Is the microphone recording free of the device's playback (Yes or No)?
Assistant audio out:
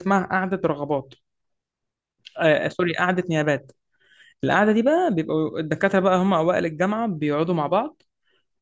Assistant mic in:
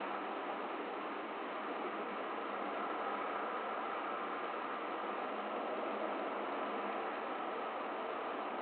Yes